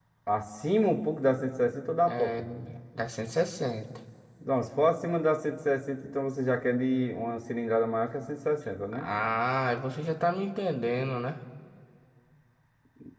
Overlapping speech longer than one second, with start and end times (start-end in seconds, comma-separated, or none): none